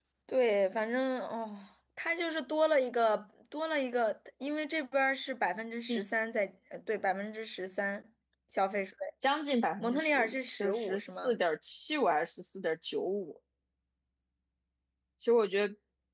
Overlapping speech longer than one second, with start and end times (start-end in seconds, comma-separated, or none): 9.8-11.4